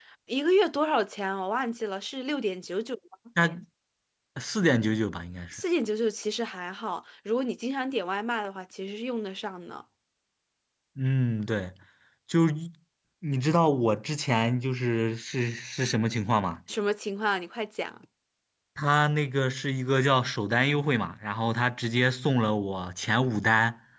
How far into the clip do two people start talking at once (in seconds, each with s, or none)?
none